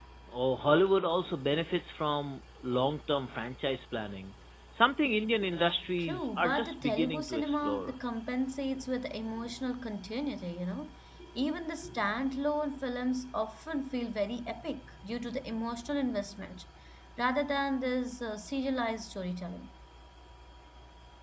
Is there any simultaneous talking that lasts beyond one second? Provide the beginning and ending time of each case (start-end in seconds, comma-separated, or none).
6.0-7.9